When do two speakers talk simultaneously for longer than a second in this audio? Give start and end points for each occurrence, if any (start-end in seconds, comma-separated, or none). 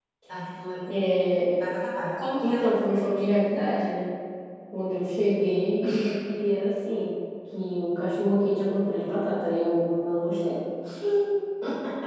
none